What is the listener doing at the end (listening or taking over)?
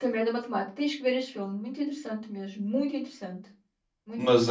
taking over